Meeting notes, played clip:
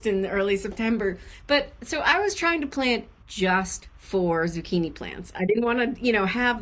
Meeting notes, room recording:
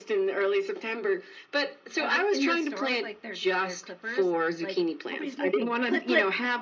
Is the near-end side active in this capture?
Yes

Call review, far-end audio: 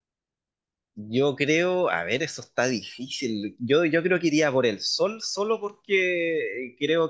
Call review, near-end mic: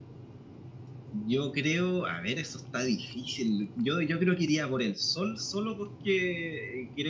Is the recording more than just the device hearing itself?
No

